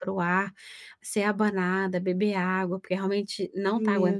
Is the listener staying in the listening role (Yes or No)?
No